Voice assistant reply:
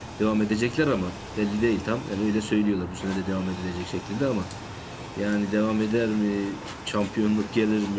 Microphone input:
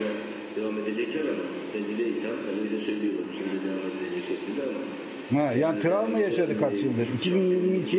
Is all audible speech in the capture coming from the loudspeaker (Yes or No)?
No